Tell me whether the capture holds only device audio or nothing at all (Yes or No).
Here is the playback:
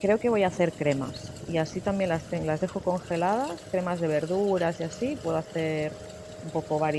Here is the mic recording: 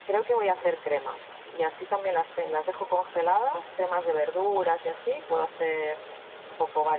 Yes